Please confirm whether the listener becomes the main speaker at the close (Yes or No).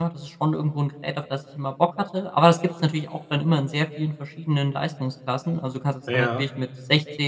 No